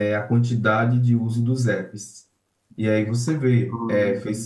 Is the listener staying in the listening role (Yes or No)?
Yes